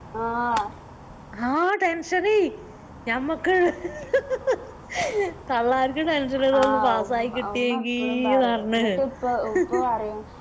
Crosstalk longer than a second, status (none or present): present